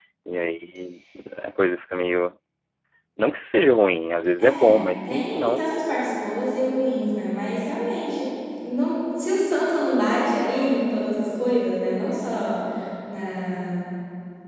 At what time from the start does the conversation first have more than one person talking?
4.4 s

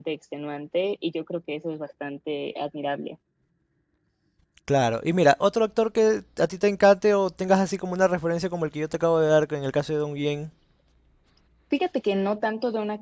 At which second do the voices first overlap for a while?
none

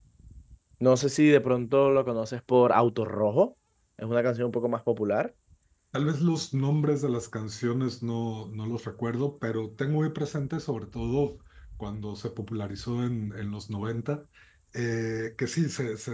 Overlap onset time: none

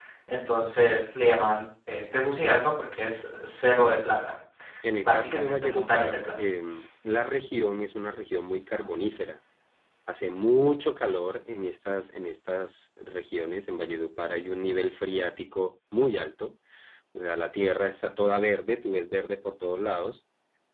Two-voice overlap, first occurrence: 5.0 s

